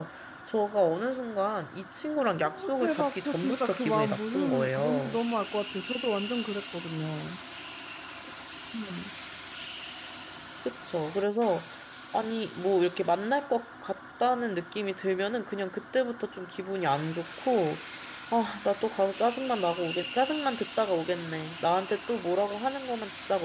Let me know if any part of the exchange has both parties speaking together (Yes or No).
Yes